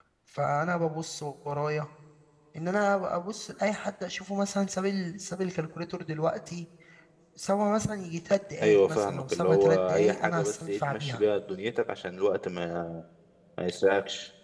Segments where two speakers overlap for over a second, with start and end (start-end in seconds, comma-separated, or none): 8.6-11.2